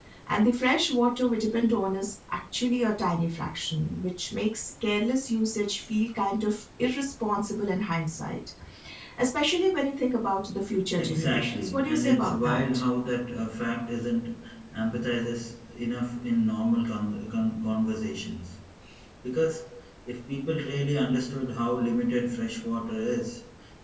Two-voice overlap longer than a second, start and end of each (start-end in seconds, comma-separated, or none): 11.0-12.8